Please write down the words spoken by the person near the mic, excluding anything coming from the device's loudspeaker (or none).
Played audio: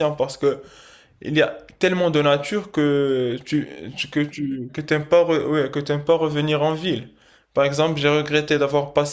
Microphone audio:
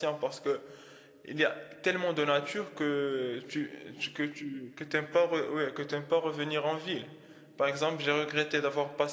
none